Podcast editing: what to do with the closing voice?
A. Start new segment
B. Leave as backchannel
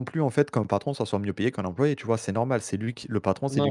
A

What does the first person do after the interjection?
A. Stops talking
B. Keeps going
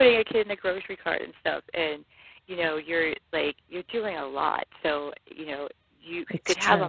B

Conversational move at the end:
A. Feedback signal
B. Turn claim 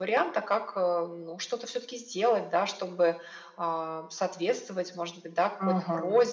A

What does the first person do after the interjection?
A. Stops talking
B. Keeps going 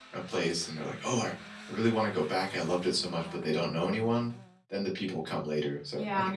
A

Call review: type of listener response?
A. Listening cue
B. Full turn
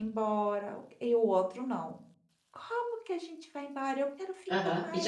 B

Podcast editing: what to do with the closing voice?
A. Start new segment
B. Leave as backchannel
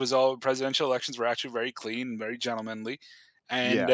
B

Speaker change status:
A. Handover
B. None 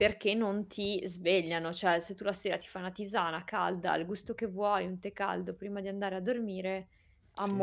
B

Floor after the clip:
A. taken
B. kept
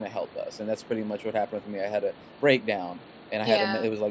B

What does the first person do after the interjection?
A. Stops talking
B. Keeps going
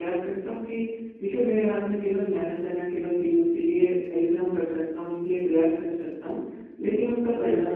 B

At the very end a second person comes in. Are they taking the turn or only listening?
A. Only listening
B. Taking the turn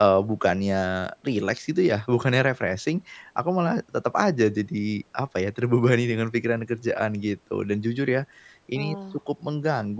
A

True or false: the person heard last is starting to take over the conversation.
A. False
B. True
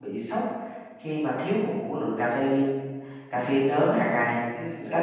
B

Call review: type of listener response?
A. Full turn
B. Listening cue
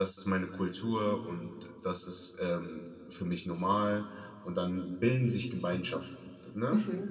A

